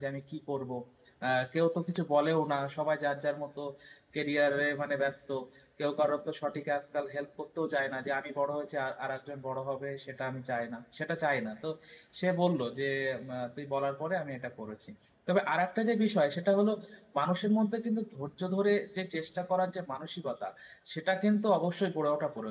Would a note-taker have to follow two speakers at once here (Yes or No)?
No